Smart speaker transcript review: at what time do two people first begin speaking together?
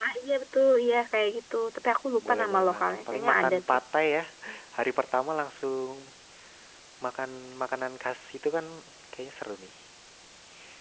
2.2 s

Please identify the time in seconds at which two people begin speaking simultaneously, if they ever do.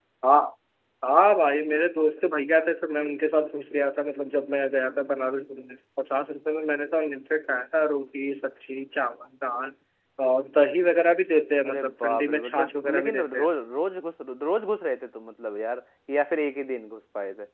11.6 s

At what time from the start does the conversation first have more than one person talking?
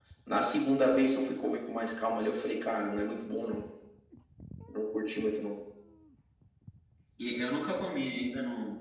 none

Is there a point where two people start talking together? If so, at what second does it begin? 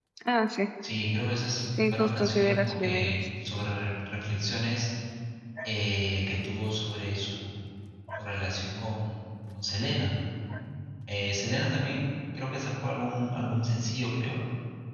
1.8 s

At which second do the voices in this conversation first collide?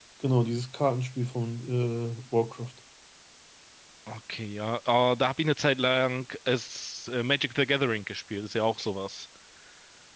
none

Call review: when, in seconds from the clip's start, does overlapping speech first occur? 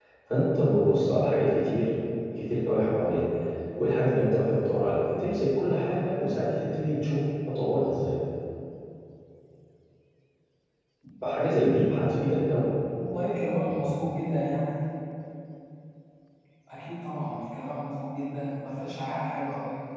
none

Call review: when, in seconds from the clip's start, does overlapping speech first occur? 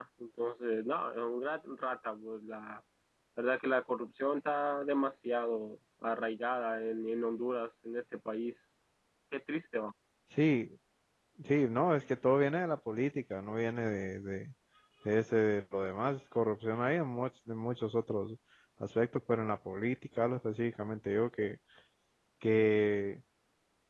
none

